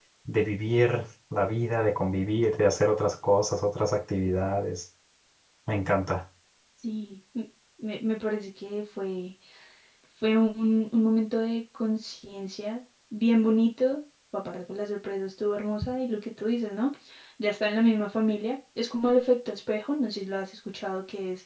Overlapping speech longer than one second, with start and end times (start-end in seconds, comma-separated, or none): none